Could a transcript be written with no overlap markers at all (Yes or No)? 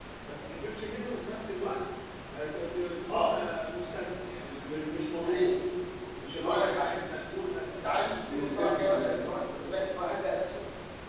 No